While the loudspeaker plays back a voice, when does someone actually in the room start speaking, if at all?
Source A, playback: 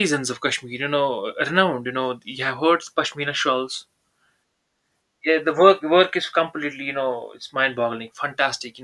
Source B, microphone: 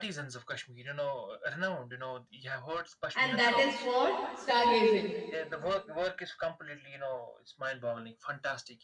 3.1 s

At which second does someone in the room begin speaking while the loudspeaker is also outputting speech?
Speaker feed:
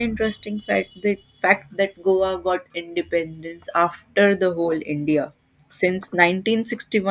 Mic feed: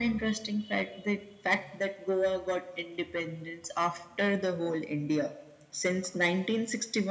none

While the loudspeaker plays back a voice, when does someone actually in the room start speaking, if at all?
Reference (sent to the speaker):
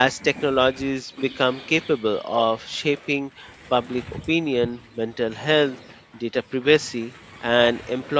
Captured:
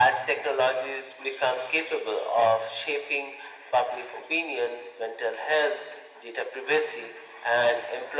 none

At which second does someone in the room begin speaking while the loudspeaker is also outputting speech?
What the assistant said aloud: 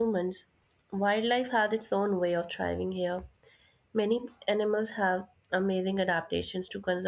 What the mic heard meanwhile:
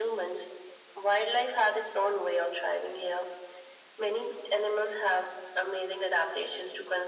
none

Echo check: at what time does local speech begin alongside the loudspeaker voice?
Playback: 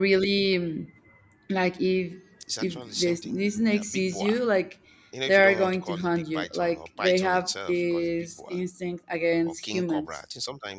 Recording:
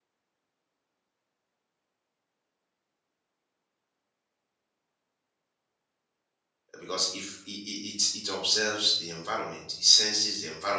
6.8 s

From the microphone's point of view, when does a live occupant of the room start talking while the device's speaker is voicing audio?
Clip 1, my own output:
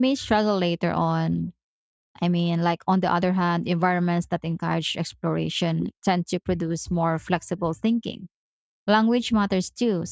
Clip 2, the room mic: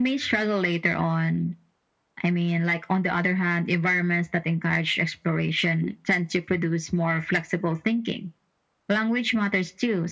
none

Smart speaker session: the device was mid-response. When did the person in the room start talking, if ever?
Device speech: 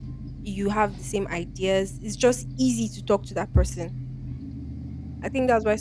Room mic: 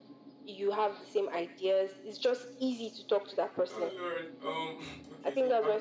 3.7 s

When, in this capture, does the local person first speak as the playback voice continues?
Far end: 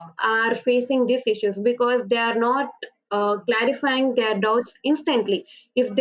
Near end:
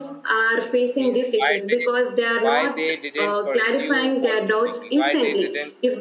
0.9 s

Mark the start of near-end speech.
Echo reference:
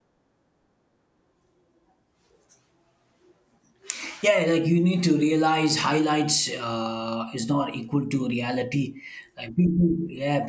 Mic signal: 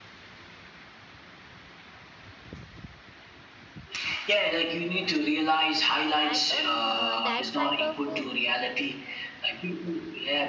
6.2 s

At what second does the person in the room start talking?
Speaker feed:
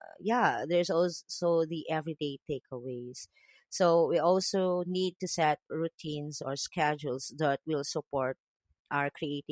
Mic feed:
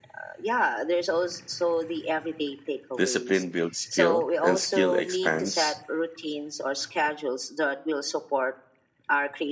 3.0 s

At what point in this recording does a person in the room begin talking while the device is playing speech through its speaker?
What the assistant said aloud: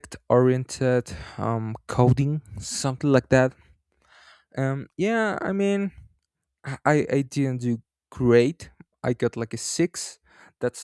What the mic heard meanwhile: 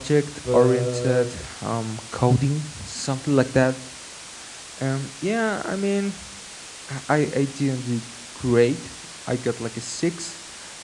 0.4 s

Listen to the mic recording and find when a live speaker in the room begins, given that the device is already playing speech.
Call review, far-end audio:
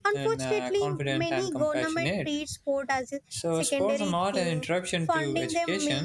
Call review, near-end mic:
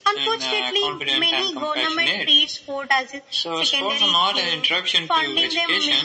none

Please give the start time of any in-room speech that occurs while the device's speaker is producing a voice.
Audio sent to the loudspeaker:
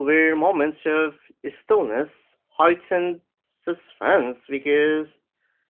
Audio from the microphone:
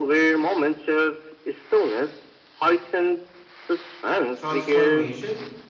4.3 s

